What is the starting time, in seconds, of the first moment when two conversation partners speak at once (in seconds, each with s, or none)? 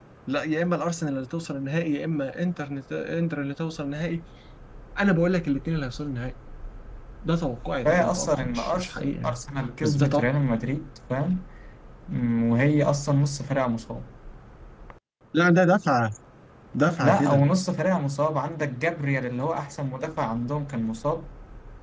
7.8 s